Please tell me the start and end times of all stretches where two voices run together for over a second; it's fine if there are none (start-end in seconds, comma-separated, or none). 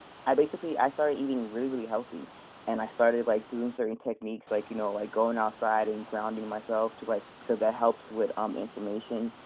none